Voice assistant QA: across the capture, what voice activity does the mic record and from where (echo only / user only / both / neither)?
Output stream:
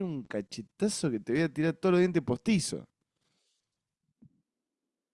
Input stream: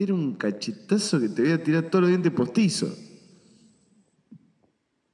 echo only